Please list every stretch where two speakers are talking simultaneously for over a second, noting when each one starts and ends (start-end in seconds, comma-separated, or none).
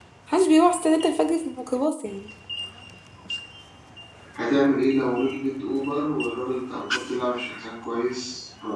none